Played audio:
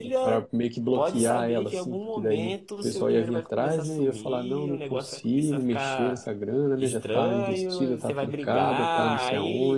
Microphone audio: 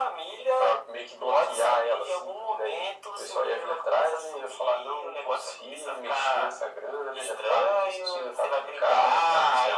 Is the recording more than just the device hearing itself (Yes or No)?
No